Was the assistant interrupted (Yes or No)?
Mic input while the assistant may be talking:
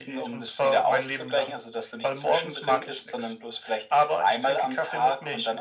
No